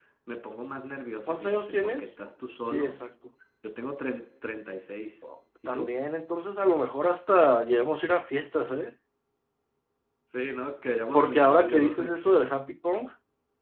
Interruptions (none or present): present